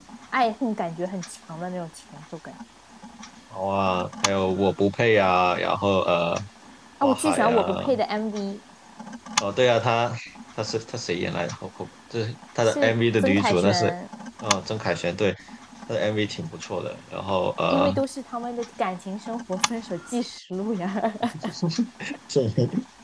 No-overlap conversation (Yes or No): No